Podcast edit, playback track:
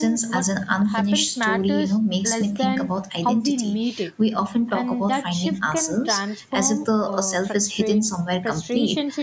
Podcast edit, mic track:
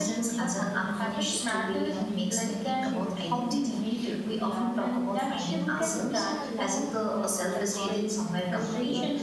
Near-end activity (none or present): present